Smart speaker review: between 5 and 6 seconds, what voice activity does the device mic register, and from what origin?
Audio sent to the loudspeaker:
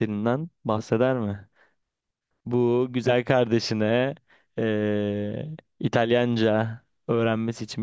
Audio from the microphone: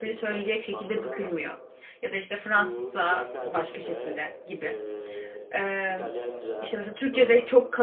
both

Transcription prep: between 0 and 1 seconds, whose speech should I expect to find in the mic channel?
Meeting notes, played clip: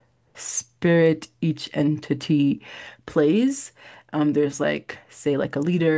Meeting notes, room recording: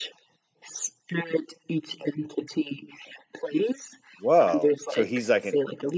echo only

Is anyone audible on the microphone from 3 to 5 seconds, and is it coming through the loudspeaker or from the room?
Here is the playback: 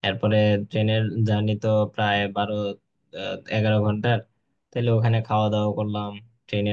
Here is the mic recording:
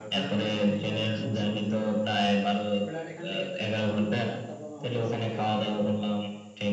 both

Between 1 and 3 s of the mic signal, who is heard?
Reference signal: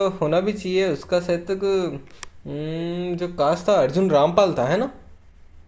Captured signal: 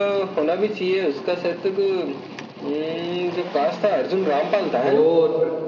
echo only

